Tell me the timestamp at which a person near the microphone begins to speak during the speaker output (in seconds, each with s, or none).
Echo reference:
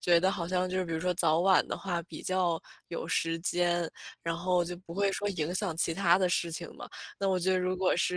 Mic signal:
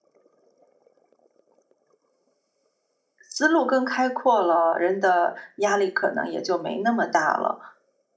3.3 s